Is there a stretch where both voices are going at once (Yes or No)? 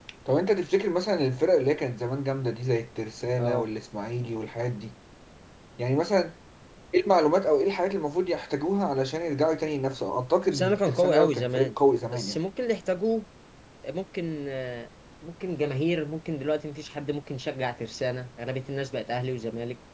Yes